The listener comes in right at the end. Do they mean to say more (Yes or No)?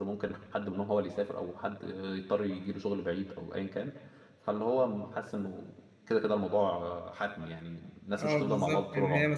Yes